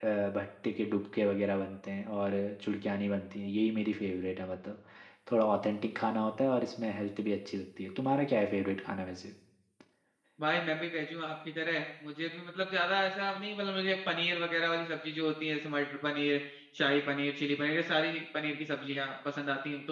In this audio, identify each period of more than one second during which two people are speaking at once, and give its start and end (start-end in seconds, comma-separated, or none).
none